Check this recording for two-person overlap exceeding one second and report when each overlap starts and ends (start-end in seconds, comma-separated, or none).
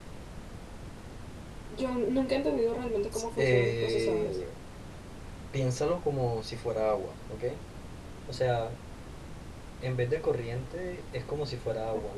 3.1-4.4